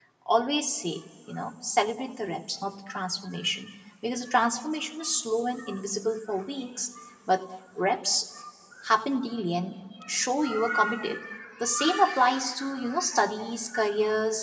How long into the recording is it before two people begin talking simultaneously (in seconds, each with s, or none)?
none